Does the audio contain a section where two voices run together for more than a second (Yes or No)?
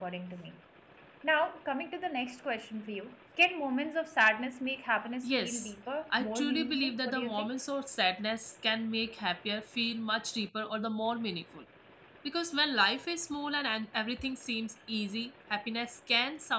Yes